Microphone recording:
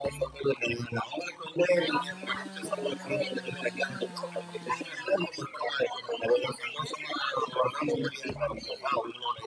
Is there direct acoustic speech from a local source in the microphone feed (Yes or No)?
No